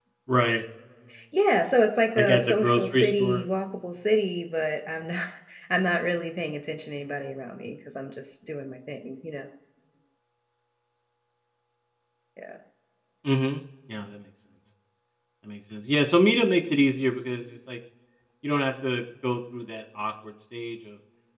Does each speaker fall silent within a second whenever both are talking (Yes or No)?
No